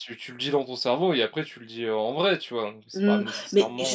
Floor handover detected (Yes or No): Yes